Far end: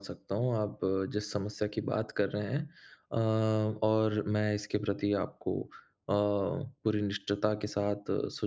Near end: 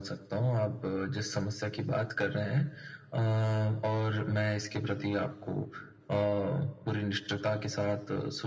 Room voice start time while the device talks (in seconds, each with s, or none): none